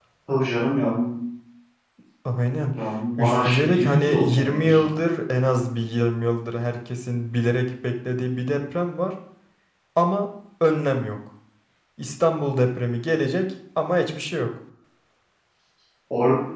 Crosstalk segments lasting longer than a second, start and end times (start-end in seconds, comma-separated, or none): 3.2-4.9